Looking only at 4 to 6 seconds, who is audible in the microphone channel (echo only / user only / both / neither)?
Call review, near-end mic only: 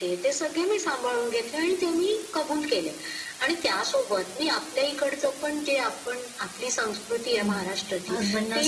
echo only